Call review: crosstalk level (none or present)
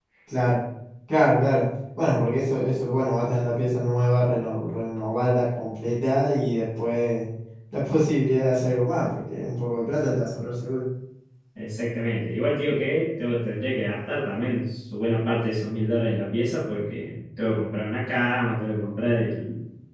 none